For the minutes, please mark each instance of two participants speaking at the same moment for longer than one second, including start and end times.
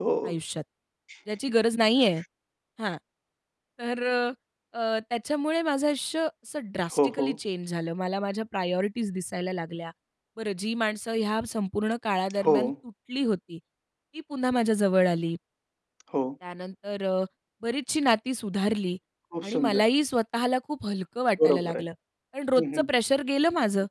none

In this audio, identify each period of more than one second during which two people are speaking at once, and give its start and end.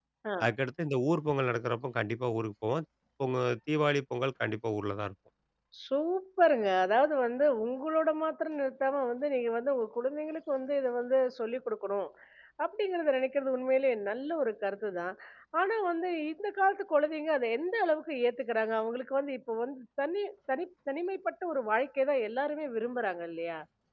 none

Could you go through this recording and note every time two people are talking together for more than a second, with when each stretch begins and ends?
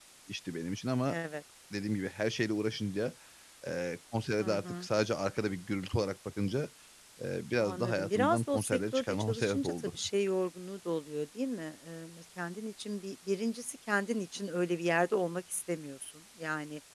7.6-10.0

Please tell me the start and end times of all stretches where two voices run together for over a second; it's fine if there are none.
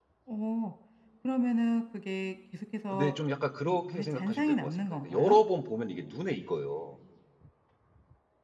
3.7-5.4

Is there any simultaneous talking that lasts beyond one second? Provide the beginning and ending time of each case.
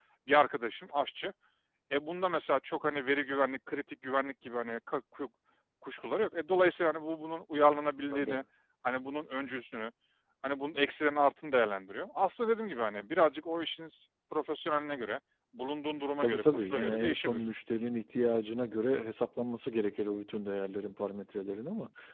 16.2-17.4

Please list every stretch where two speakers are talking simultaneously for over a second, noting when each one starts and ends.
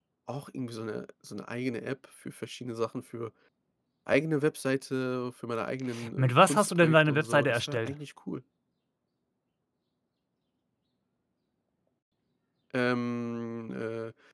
6.2-7.9

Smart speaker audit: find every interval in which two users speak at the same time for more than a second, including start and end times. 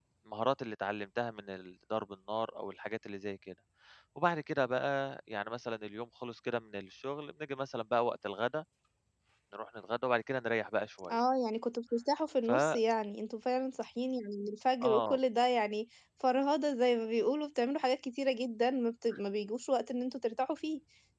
none

